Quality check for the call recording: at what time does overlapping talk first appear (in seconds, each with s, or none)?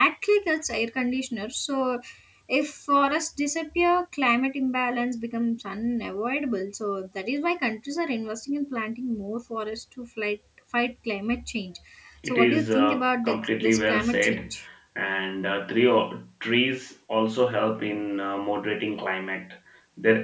12.2 s